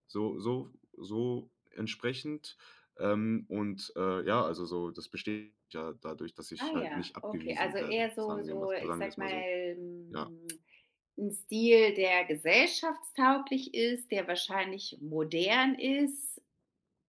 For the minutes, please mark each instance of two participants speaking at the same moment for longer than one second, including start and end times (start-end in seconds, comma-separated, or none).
6.6-9.4